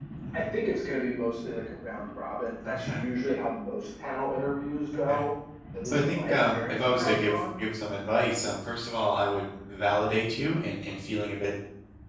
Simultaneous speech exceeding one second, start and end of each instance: 5.8-7.3

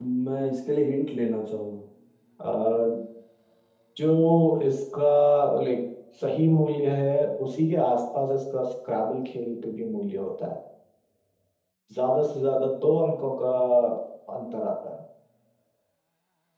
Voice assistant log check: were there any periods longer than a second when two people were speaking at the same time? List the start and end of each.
none

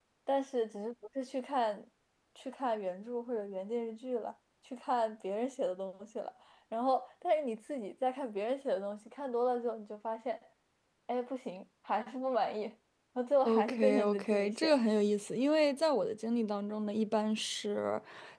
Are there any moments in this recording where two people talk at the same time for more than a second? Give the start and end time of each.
13.4-14.7

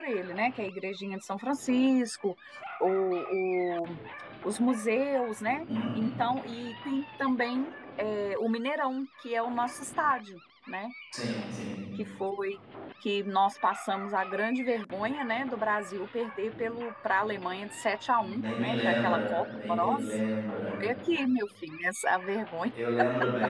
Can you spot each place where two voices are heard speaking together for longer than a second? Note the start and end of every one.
18.4-20.2

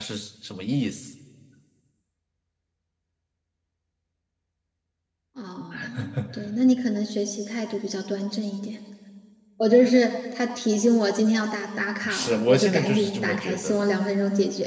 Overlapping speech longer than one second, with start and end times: 12.1-13.9

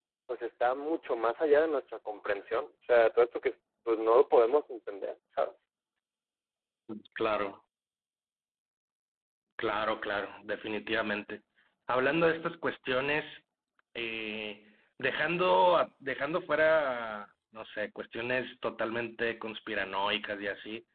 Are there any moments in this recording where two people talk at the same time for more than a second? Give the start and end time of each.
none

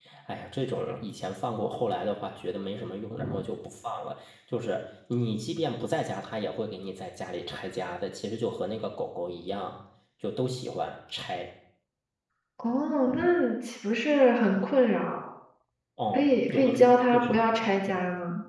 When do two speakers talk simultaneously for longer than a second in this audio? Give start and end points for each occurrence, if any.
16.1-17.9

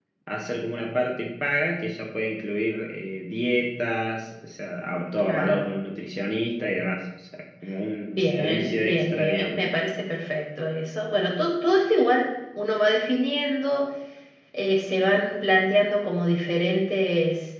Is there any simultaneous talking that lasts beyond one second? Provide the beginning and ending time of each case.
8.1-9.6

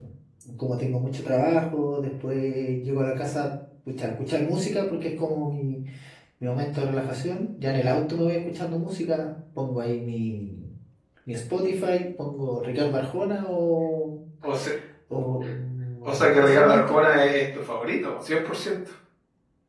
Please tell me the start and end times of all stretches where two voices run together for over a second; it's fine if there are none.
16.1-17.3

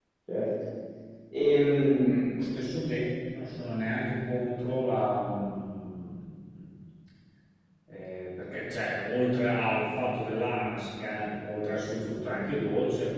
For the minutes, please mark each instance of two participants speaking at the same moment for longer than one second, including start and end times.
none

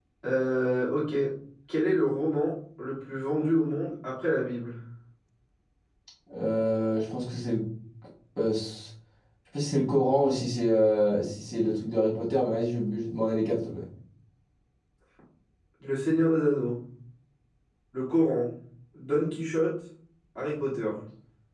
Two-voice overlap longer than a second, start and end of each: none

